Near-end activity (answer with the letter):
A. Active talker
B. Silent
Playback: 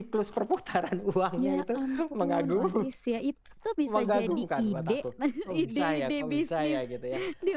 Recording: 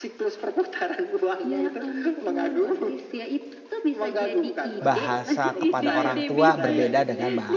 A